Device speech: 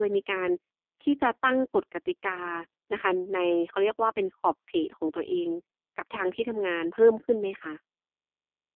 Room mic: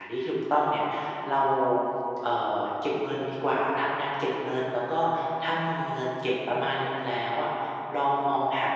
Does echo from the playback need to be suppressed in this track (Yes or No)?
No